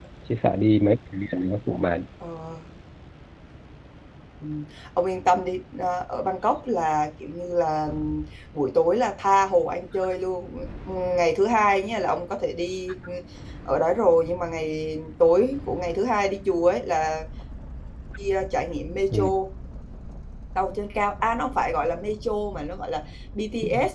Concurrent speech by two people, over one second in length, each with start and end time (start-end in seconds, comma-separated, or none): none